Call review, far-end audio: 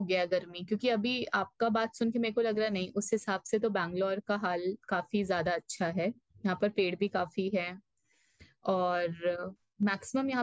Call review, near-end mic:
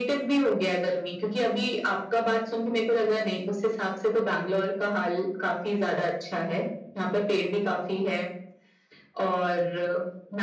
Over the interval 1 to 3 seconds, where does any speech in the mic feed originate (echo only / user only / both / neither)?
echo only